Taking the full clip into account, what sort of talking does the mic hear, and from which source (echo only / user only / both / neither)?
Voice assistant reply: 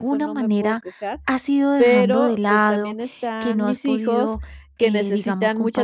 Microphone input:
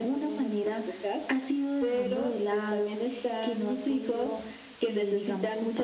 echo only